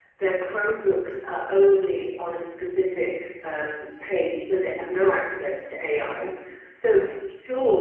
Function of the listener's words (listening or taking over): listening